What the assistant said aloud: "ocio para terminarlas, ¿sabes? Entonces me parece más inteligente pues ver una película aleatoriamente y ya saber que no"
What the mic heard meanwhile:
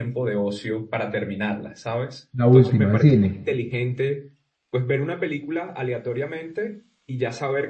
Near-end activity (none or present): present